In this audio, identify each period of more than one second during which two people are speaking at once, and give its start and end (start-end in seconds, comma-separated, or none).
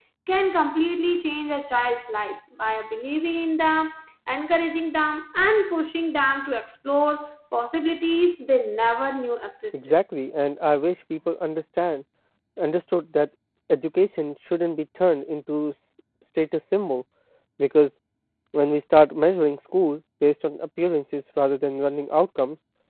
none